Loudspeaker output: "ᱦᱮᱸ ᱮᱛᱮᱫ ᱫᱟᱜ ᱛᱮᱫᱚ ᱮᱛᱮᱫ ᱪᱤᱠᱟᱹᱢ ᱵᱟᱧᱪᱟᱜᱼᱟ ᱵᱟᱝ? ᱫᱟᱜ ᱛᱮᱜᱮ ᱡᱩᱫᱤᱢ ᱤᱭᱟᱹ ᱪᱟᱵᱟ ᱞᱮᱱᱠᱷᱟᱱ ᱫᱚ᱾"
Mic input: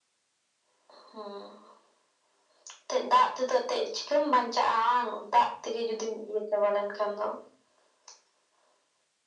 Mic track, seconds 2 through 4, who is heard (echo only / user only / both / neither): echo only